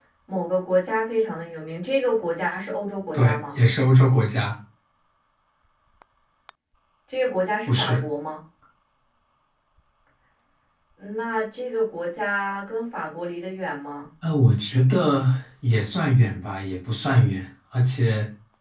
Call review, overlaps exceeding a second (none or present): none